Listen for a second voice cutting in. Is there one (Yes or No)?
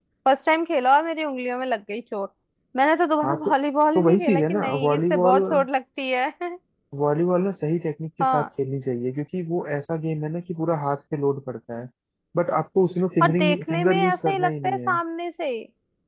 Yes